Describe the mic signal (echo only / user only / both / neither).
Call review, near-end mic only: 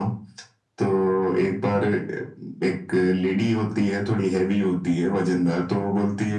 echo only